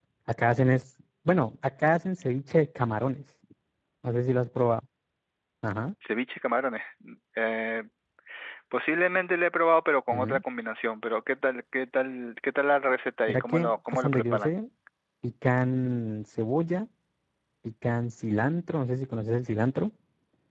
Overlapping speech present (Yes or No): Yes